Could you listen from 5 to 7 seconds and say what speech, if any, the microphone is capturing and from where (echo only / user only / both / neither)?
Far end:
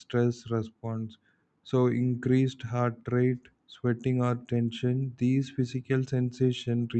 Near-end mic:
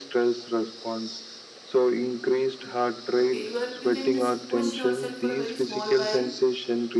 both